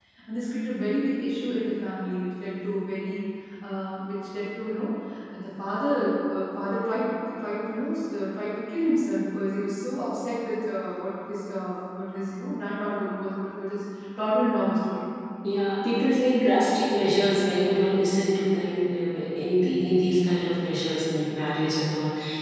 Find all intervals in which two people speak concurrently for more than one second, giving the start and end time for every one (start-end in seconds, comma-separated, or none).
none